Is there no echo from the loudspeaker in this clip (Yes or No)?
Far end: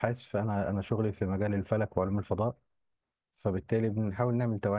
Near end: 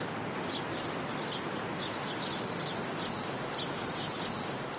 Yes